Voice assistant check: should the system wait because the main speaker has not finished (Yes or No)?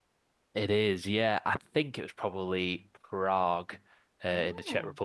Yes